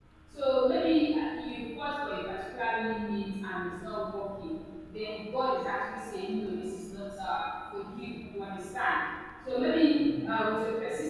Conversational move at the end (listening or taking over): listening